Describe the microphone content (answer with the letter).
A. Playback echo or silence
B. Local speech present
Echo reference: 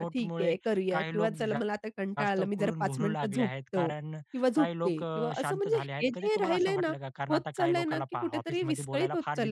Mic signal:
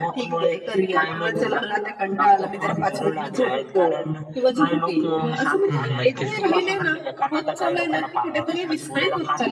B